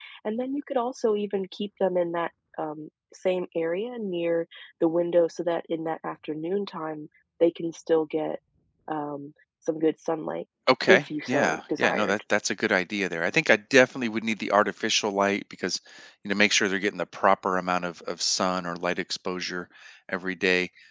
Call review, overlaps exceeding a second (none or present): present